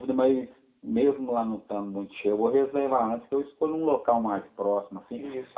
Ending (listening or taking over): listening